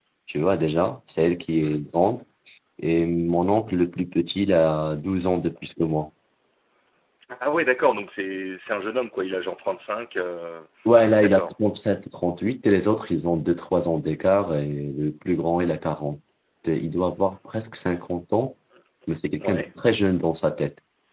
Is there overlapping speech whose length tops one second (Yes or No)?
No